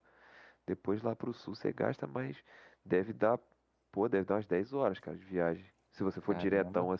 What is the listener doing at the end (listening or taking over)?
taking over